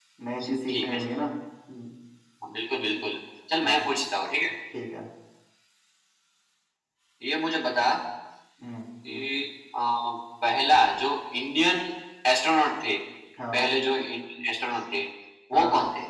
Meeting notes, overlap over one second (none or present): none